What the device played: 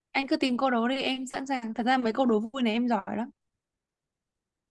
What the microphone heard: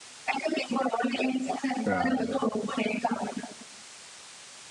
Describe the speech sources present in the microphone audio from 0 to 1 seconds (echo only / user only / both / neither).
echo only